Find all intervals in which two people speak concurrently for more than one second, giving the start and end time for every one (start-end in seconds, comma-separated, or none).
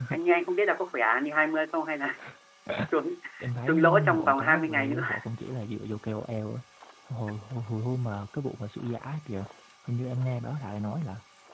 3.7-5.0